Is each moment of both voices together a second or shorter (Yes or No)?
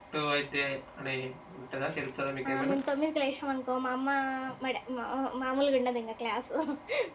Yes